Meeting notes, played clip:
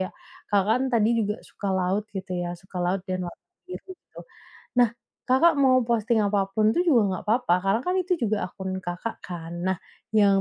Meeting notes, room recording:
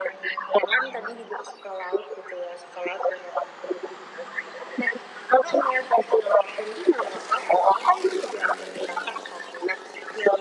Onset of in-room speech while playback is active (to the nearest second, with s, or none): none